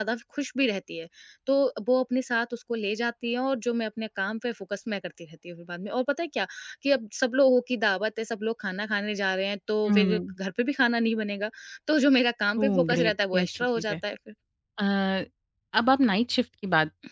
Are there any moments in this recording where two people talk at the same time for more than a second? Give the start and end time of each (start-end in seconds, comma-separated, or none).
12.6-13.9